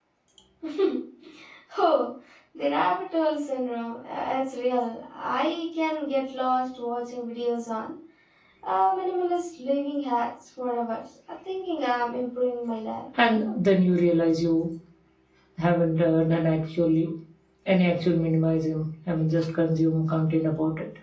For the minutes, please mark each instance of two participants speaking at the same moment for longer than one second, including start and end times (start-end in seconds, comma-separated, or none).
none